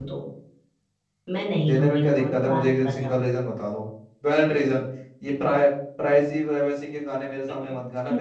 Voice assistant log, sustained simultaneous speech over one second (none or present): present